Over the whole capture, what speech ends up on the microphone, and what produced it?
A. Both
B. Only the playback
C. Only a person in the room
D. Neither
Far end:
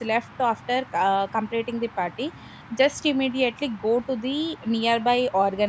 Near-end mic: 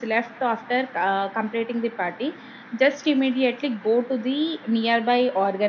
B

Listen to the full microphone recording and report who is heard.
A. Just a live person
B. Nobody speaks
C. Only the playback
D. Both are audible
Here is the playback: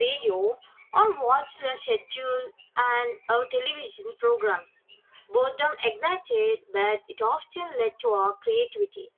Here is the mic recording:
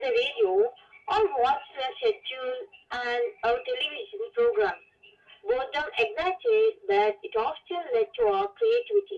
C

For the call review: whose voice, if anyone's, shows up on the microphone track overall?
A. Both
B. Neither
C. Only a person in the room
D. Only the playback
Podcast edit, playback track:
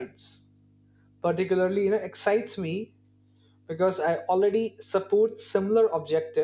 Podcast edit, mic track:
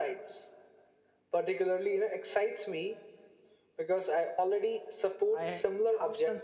A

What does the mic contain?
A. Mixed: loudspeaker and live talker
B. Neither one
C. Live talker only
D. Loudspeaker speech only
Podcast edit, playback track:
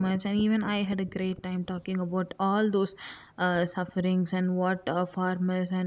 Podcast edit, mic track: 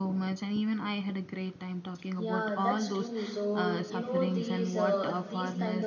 A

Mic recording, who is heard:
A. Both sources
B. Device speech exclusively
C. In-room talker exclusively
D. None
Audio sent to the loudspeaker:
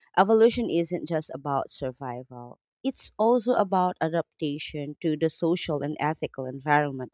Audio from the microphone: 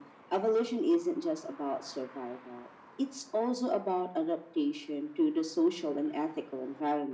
B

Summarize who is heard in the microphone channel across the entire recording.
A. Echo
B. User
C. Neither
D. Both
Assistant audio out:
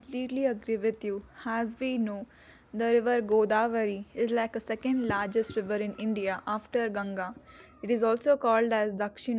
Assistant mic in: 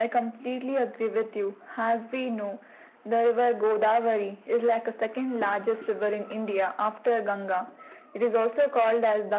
A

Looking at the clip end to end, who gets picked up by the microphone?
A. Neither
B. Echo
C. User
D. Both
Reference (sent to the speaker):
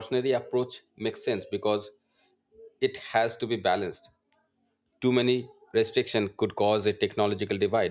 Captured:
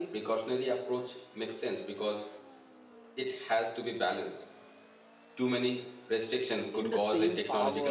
D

